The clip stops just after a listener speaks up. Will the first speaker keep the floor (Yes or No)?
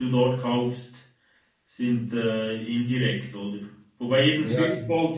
Yes